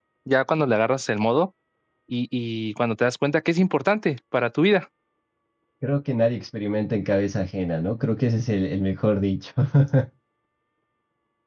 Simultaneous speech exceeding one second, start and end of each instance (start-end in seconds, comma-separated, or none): none